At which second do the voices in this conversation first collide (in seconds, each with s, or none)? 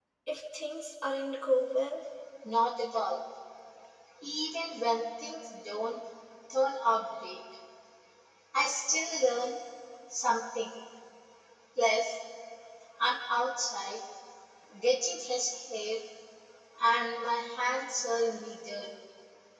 none